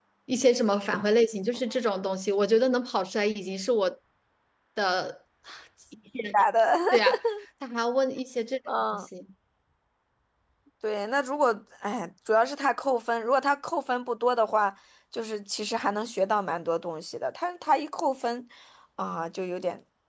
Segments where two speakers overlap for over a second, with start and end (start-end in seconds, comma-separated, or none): none